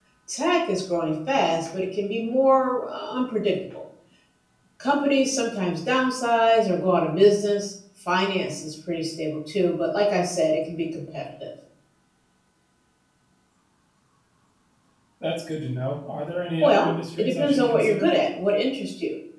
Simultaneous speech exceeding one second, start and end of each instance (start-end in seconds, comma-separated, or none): 16.6-18.1